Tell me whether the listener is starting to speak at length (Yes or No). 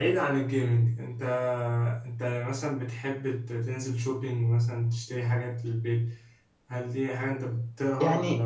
Yes